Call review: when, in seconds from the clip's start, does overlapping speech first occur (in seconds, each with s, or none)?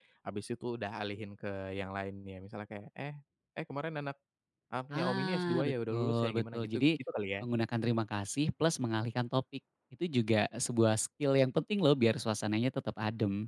4.9 s